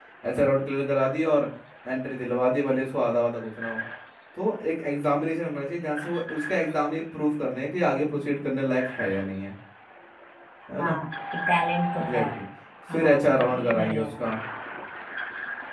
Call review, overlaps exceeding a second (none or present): present